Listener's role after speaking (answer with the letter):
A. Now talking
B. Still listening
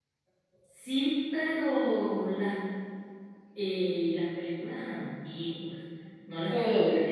A